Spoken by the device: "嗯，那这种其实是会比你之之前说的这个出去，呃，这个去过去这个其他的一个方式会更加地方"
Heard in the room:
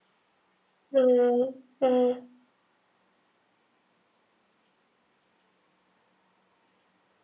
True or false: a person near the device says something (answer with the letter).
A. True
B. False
A